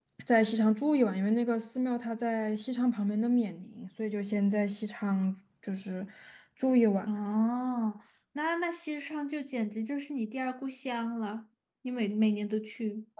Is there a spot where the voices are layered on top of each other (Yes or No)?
No